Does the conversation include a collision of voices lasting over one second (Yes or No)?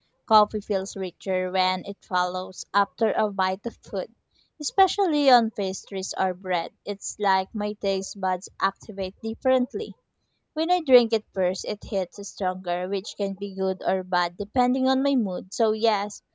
No